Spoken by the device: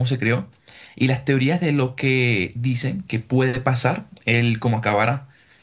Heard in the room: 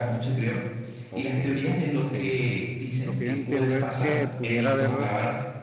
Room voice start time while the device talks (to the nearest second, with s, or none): 1 s